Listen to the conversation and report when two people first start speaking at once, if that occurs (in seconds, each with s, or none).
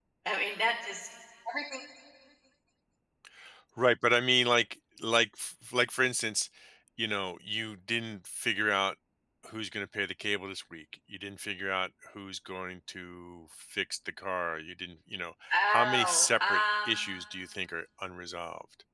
15.5 s